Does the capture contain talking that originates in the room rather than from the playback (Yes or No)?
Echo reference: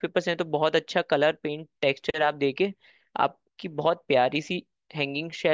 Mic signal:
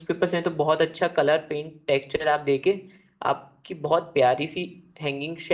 No